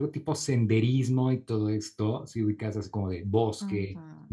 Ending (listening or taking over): listening